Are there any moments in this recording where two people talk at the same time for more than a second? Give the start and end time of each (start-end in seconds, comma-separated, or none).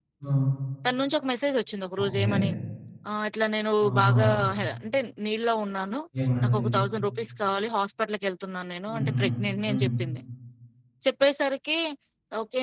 none